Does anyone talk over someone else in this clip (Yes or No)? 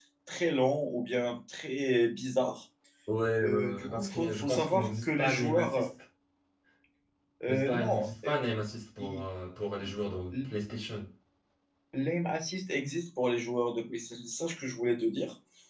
Yes